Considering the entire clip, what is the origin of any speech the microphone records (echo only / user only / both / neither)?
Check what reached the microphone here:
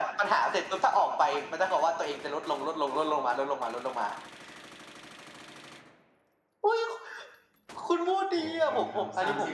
both